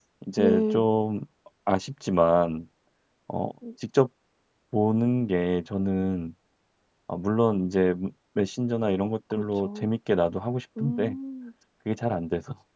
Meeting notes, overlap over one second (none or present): none